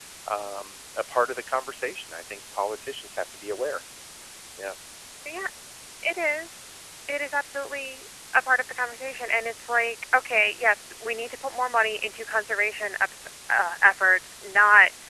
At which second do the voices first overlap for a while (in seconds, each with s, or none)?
none